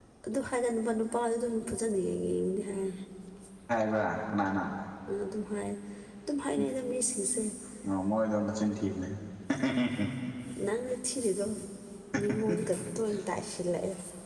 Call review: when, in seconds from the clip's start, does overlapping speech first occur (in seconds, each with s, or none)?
none